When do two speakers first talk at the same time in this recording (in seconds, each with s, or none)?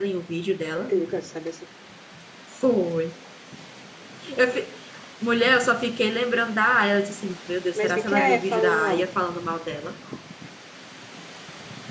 7.8 s